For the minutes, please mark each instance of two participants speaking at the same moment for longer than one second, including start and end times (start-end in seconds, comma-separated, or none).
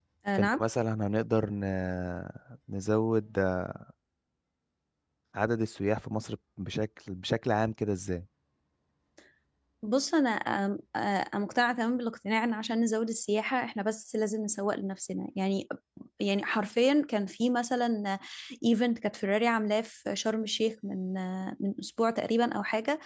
none